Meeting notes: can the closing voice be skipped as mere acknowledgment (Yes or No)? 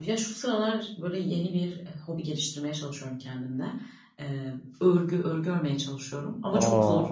Yes